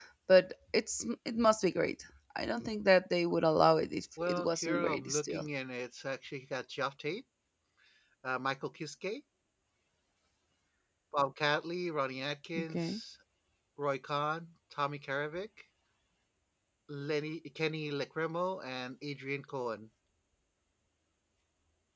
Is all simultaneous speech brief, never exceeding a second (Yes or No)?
No